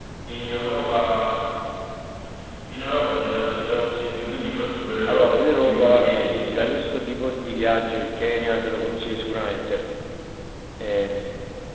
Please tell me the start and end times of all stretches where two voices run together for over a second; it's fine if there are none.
5.1-6.5

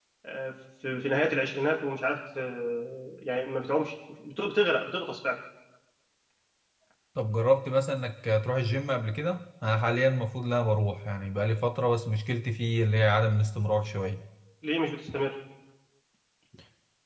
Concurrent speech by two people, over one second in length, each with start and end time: none

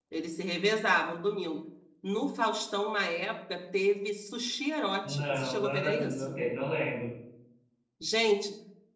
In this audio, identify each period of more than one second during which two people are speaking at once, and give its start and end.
5.0-6.3

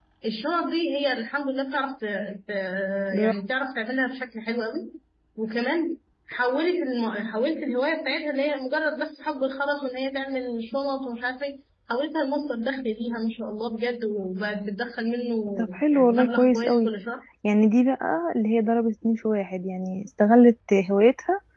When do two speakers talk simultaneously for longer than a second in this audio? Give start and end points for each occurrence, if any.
15.6-16.9

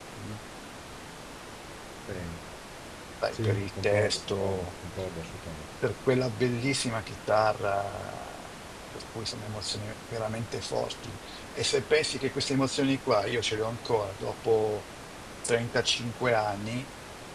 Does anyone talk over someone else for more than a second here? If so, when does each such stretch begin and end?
3.3-4.7

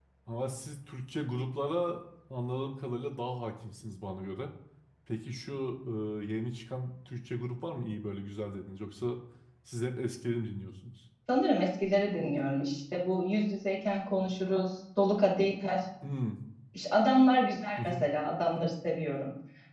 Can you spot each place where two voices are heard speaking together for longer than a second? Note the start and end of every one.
none

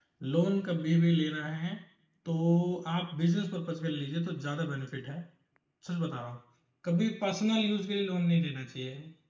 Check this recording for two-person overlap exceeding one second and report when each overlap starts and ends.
none

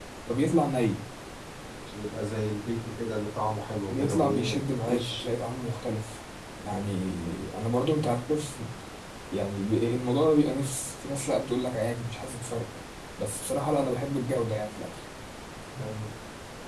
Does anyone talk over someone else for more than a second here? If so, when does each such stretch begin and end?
3.9-5.3

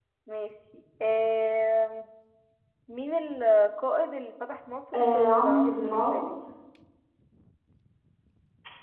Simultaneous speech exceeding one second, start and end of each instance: 4.9-6.4

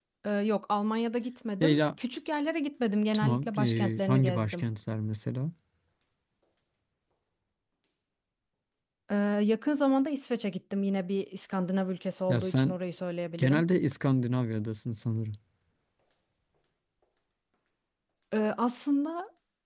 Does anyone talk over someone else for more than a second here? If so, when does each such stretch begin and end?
3.1-4.6

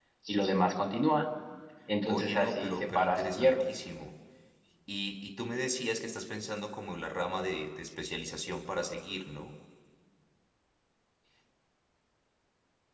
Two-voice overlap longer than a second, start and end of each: 2.0-3.6

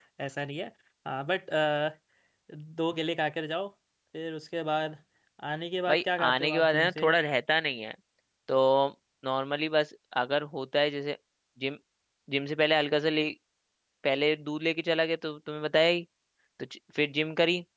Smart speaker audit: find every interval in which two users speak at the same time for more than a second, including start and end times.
5.9-7.1

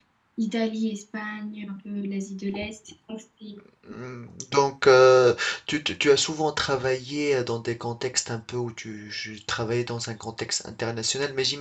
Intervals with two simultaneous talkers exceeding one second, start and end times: none

